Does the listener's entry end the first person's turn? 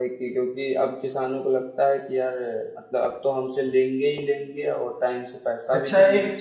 Yes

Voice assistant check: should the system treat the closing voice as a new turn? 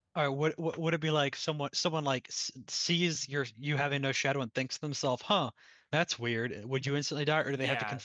Yes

